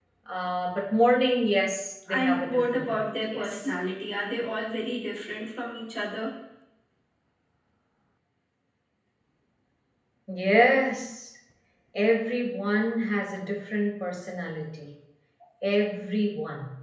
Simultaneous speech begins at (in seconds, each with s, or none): 2.1 s